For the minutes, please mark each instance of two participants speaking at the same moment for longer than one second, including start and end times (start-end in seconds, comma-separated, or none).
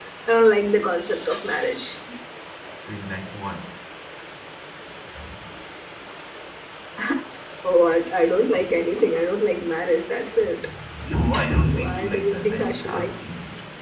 11.7-13.1